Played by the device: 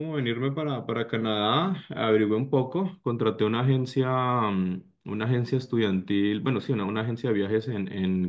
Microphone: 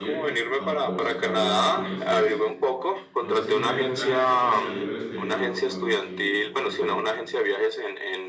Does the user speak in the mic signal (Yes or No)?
Yes